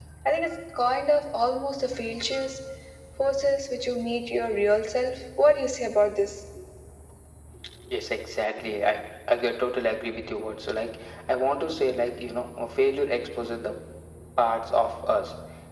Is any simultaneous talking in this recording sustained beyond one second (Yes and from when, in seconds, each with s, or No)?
No